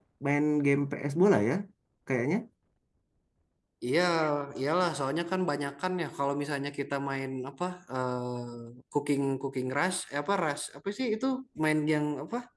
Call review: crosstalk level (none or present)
none